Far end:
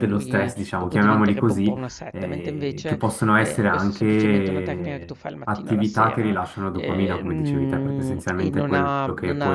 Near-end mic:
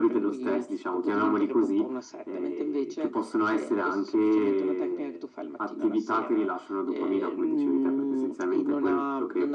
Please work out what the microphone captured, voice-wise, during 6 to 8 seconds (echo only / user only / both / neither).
echo only